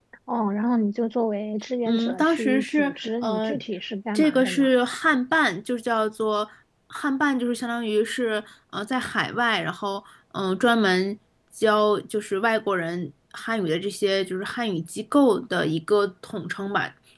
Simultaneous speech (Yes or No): Yes